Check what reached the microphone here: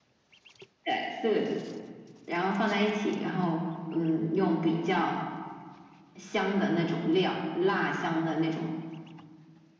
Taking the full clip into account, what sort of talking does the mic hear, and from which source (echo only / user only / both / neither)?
echo only